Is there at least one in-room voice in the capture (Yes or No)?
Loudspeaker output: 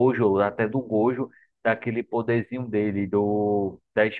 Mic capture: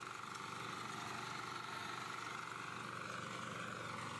No